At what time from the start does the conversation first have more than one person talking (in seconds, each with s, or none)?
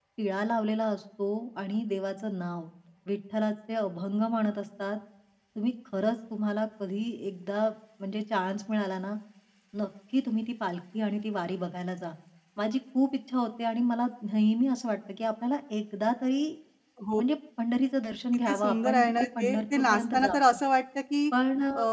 18.5 s